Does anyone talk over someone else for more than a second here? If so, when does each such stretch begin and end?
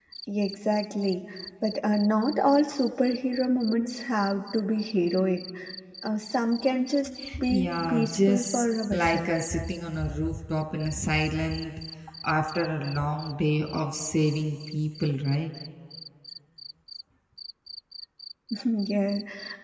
7.5-9.3

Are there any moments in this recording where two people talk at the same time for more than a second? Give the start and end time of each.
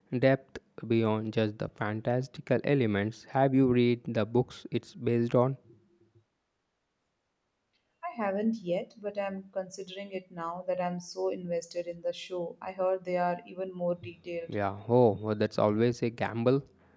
none

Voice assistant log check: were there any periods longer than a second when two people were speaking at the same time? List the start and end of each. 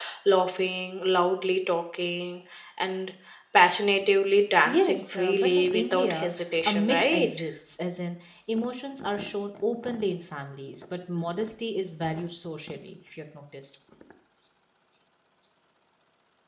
4.6-7.3

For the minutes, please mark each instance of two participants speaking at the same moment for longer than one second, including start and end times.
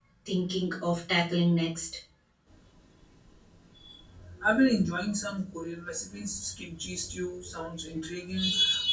none

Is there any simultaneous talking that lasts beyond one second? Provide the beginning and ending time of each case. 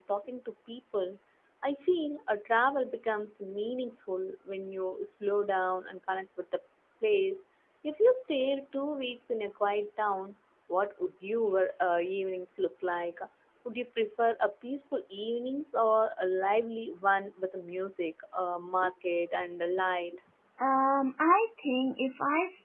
none

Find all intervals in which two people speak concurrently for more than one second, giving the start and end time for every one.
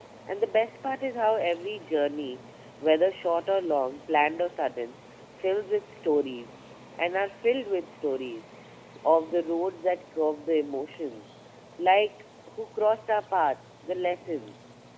none

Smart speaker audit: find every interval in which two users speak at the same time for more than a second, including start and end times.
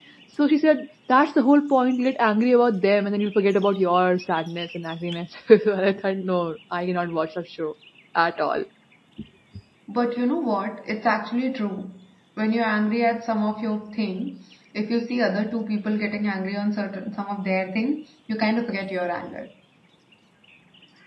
none

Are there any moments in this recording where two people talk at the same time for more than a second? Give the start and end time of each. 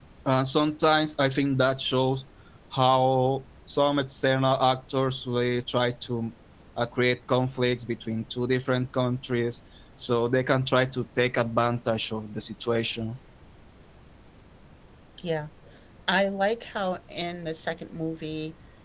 none

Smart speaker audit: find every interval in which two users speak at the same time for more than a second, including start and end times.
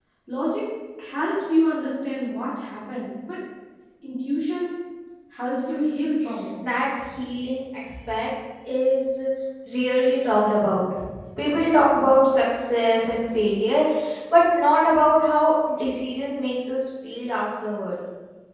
none

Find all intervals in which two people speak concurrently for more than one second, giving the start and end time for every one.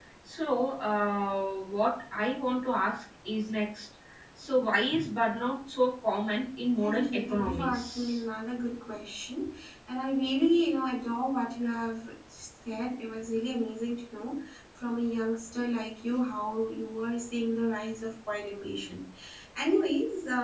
6.8-8.2

